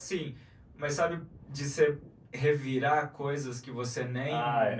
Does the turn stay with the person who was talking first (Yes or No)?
No